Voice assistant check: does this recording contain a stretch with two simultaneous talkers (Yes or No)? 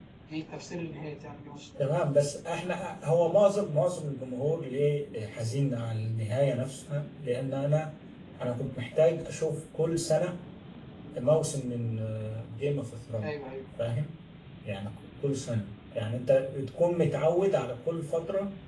No